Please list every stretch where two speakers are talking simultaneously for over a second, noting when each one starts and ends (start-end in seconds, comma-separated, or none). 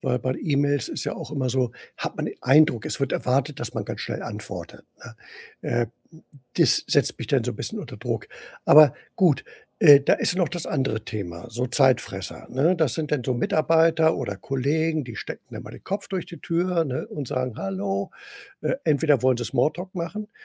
none